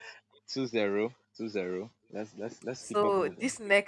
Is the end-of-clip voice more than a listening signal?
Yes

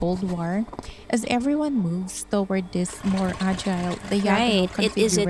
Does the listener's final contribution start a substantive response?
Yes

